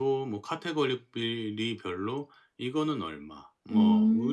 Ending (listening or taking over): listening